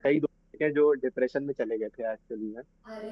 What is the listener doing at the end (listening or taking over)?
listening